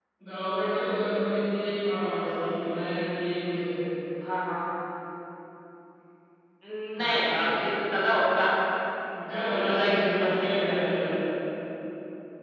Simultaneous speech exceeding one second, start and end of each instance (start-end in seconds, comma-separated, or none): 9.6-11.1